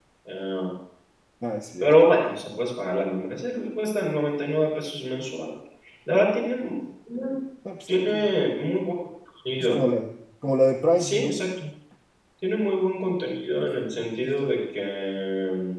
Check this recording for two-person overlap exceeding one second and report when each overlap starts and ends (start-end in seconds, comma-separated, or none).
none